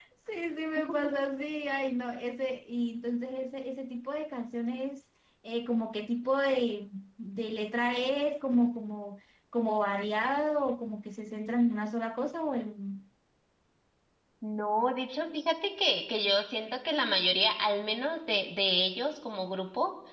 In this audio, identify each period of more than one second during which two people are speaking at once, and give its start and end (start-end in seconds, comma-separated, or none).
none